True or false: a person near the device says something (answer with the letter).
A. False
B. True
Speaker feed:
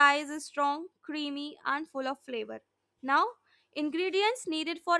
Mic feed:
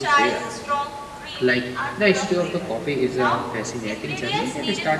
B